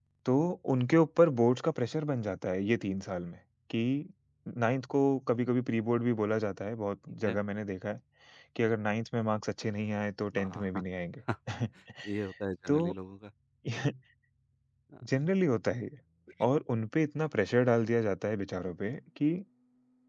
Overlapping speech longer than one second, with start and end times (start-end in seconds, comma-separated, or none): none